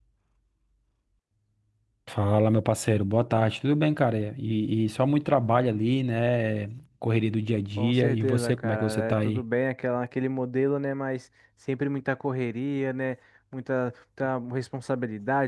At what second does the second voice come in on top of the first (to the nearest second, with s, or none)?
8 s